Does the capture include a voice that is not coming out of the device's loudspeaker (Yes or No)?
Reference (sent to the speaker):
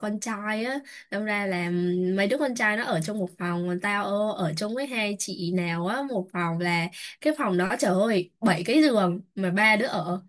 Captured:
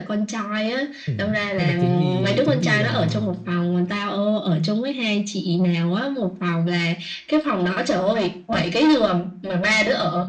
Yes